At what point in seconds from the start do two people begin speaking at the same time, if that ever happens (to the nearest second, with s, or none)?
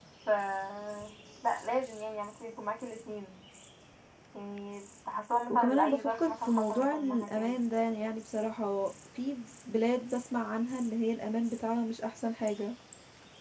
5 s